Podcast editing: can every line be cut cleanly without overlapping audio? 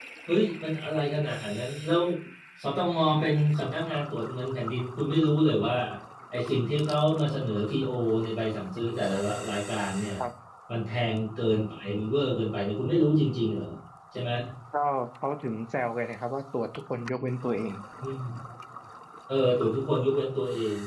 Yes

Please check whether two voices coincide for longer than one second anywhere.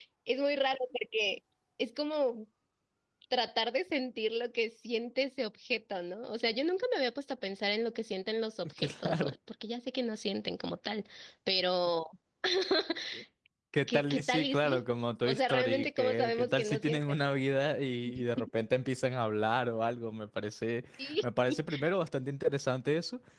Yes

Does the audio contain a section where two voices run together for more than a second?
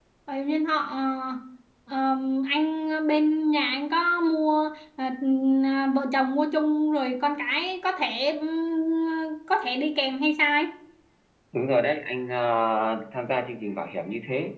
No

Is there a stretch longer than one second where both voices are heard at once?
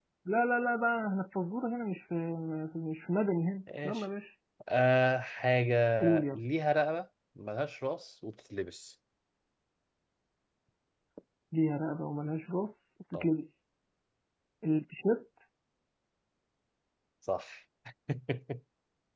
No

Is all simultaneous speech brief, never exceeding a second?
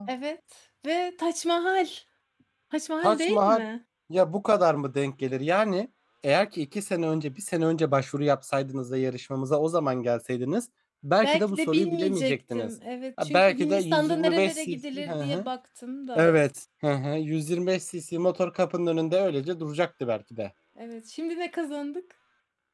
No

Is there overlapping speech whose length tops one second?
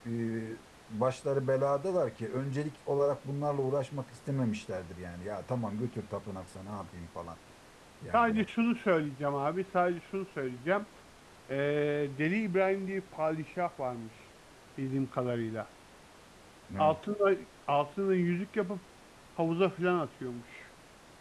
No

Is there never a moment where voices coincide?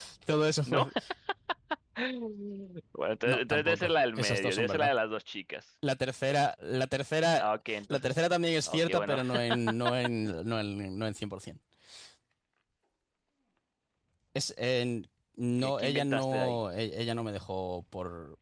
No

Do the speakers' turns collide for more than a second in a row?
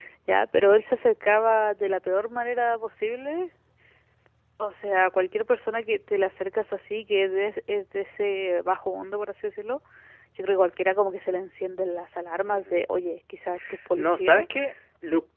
No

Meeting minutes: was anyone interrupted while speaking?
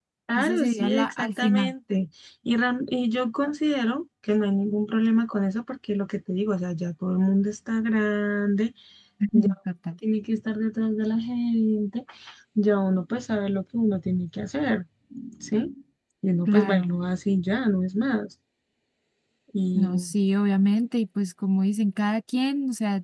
Yes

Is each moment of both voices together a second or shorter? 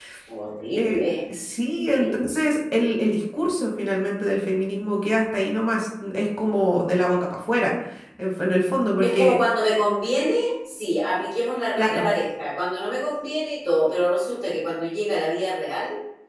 Yes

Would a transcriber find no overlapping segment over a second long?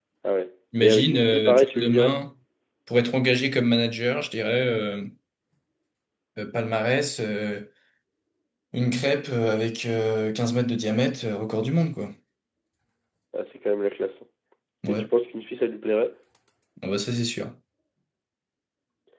No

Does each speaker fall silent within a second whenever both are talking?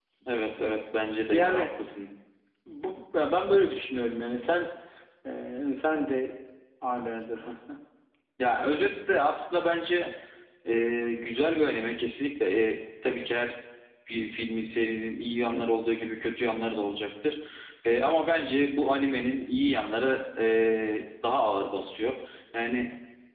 Yes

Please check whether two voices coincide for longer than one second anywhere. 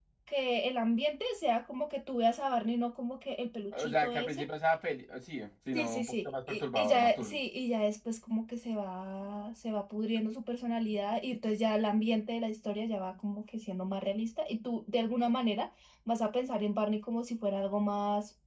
Yes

